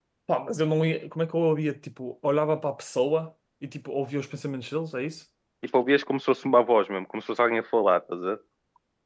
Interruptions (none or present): none